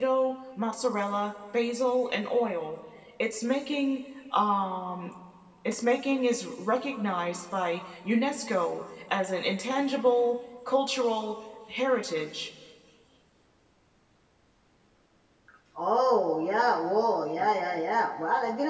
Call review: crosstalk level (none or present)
none